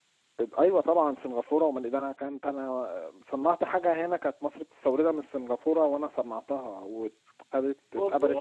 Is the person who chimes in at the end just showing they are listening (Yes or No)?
Yes